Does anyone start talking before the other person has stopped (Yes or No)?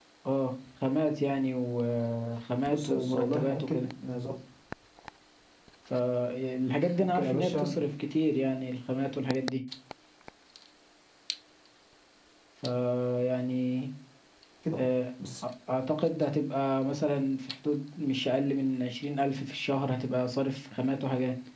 Yes